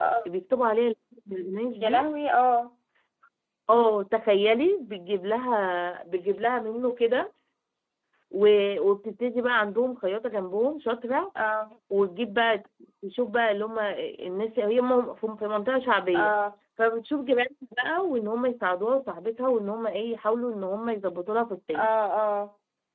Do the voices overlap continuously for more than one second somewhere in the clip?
No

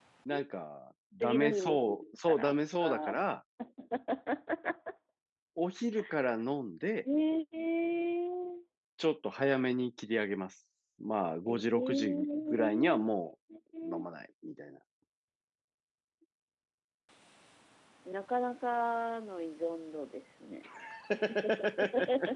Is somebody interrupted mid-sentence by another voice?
Yes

